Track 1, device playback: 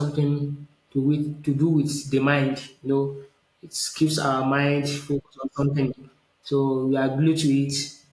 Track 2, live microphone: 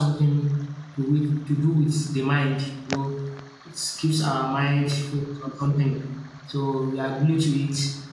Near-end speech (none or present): none